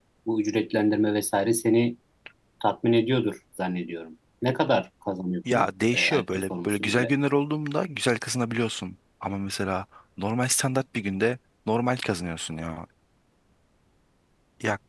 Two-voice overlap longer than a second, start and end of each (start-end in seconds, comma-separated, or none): 5.5-7.1